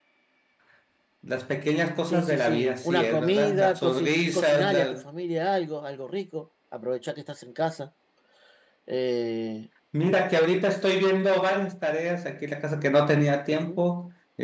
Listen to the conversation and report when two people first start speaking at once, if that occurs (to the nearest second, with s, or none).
2 s